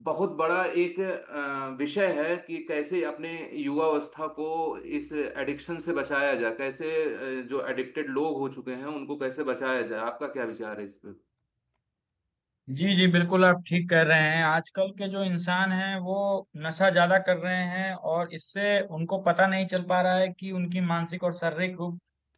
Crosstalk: none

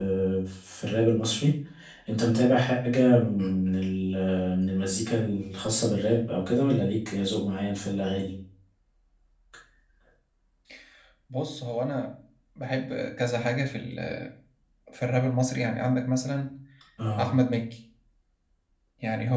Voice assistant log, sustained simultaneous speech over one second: none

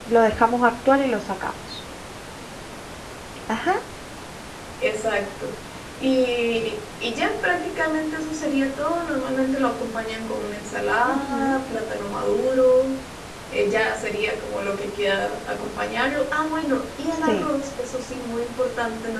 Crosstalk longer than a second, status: none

